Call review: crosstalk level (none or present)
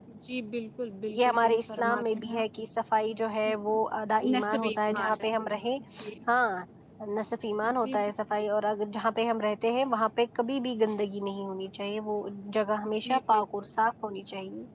present